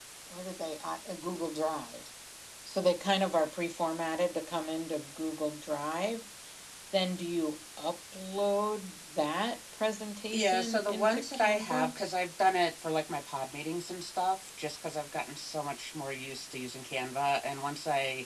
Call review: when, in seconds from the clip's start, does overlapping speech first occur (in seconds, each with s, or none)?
10.3 s